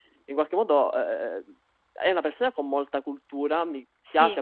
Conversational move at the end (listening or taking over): listening